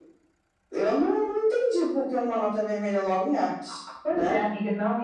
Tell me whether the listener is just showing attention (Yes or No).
No